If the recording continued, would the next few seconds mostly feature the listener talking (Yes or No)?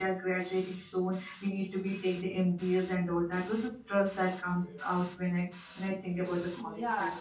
Yes